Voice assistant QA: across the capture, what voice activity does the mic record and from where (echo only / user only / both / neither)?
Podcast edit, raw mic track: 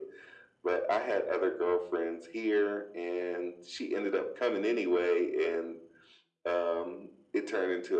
echo only